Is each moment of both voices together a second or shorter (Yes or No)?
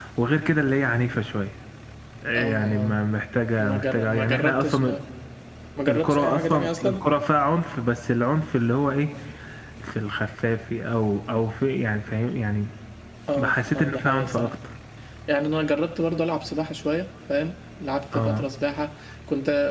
No